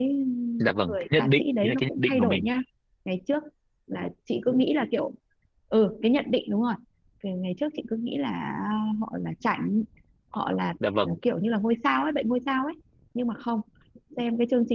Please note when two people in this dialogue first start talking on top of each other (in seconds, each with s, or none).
0.9 s